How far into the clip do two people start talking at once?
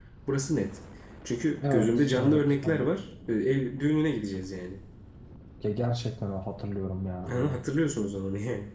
2 s

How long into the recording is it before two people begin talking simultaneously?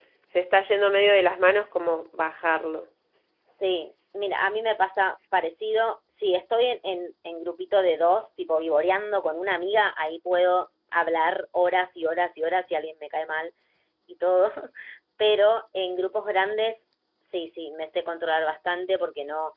none

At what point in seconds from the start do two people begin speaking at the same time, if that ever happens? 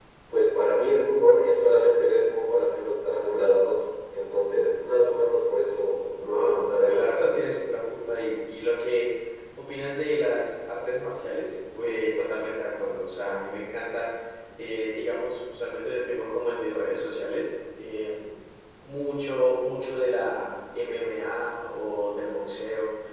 6 s

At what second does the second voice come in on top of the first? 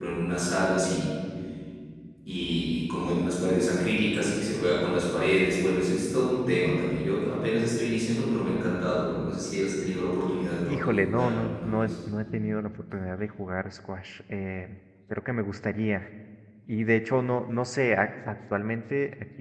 11 s

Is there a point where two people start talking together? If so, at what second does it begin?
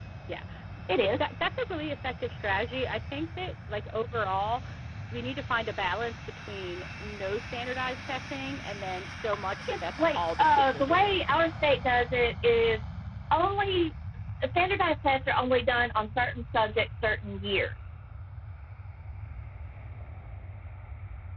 10 s

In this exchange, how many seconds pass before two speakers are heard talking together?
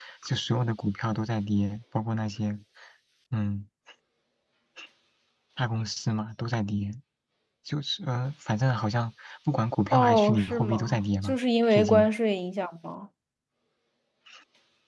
10 s

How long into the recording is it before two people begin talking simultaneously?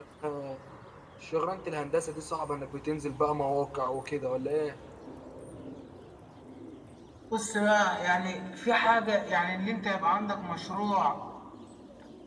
none

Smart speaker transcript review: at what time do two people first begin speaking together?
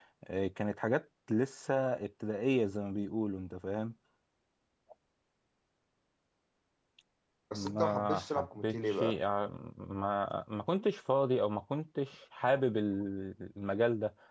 8 s

